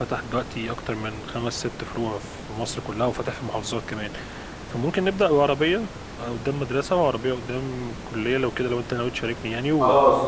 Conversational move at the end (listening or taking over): taking over